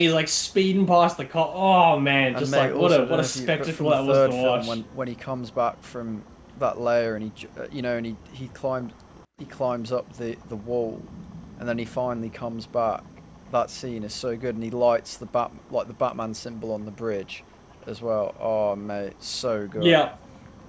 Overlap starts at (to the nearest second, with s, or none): 2 s